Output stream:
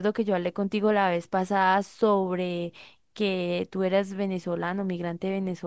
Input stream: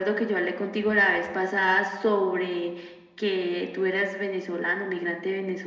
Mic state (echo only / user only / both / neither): echo only